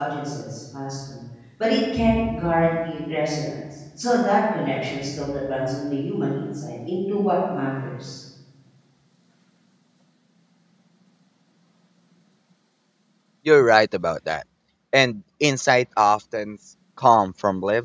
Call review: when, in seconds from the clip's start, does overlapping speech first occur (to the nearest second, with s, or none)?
none